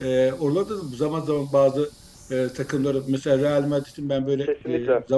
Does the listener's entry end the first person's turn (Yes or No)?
No